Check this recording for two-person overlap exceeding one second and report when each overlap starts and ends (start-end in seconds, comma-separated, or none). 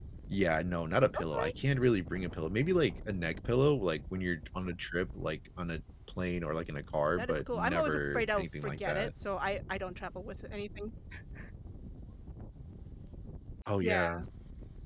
7.2-9.1